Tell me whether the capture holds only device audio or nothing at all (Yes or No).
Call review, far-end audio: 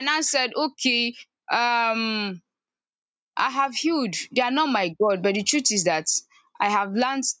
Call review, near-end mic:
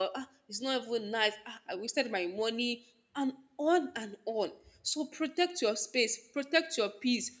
No